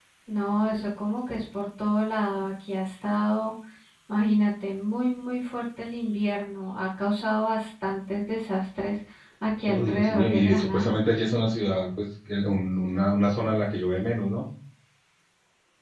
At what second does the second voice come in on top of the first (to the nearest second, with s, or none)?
10 s